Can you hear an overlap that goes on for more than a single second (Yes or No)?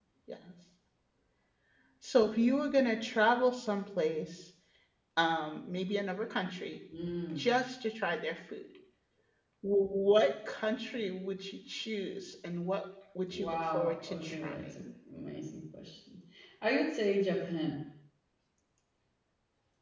Yes